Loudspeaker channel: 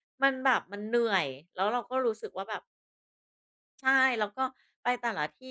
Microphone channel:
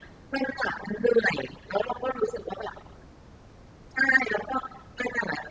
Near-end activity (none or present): none